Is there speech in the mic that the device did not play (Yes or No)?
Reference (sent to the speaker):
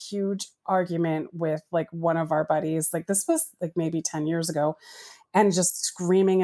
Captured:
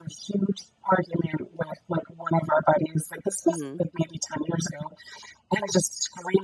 Yes